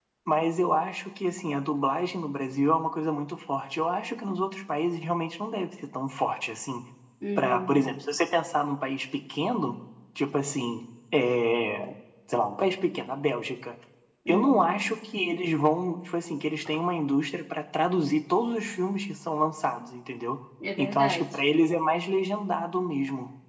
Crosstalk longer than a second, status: none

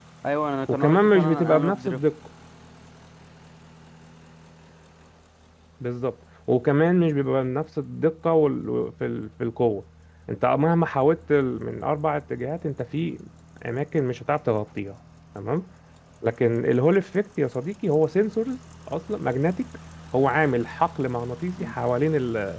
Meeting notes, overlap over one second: present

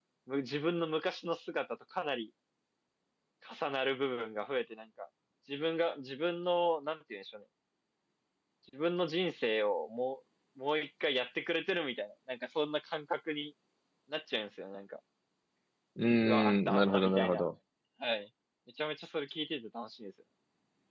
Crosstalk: present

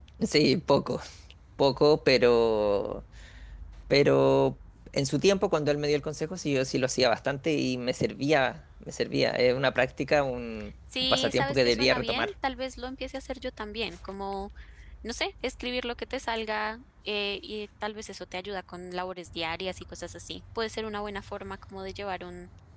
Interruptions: present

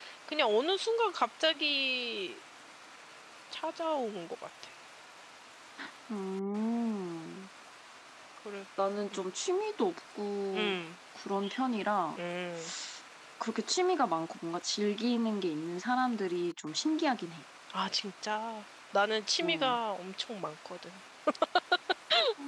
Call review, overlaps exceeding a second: none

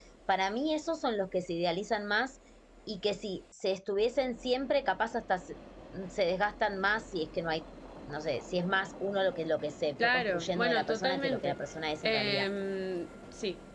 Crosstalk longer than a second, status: present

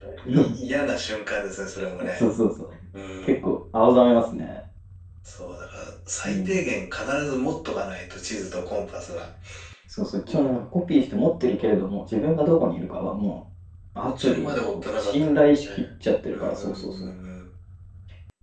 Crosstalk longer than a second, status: present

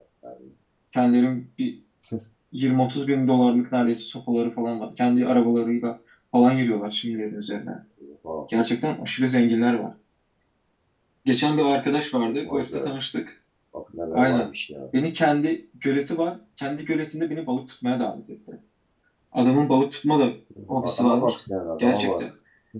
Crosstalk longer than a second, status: none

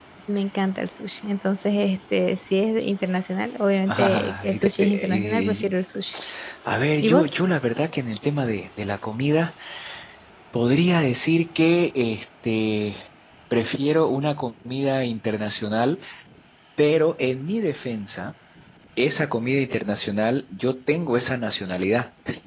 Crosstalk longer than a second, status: present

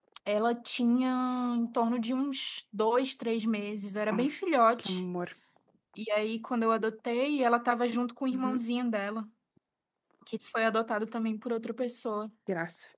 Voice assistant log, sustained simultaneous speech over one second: none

